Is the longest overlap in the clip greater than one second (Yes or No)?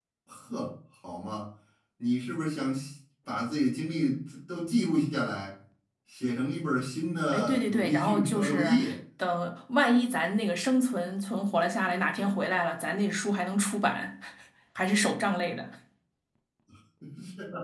Yes